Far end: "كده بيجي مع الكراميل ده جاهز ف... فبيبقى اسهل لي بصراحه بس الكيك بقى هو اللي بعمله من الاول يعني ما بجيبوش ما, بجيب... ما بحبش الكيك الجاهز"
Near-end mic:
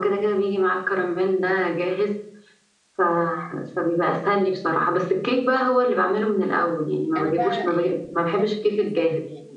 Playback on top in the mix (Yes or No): Yes